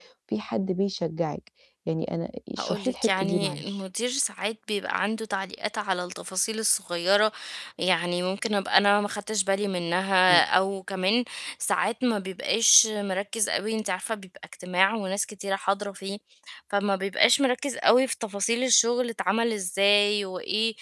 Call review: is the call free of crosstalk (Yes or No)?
No